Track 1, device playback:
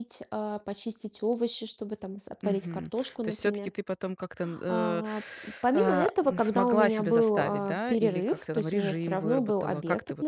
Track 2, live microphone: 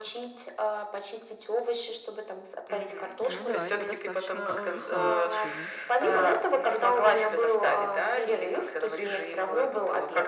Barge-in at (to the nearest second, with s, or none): 3 s